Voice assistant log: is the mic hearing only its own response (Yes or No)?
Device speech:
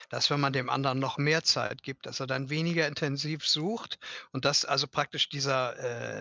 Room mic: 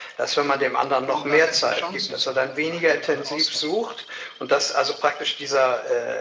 No